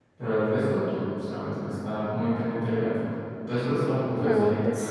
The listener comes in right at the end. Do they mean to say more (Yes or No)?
Yes